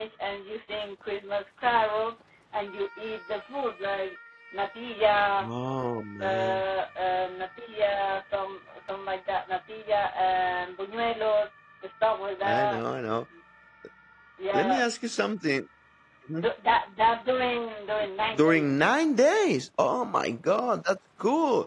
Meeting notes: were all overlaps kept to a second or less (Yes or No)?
Yes